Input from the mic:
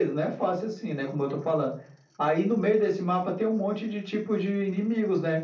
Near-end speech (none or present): none